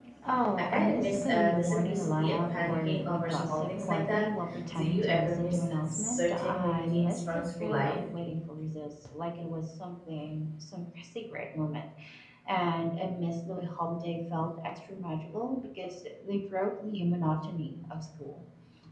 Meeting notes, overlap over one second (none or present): present